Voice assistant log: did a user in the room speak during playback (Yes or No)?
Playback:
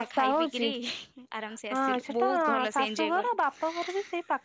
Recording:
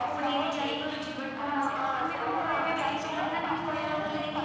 Yes